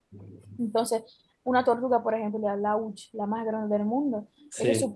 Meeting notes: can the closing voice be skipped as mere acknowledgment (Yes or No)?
Yes